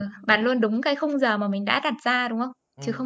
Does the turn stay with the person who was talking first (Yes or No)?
No